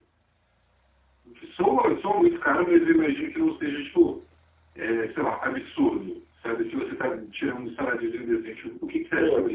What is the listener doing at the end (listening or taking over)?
taking over